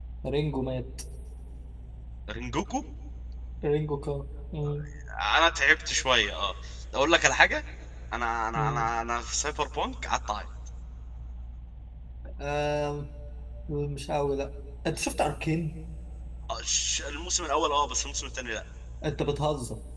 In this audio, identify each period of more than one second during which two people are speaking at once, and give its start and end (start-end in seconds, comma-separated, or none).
none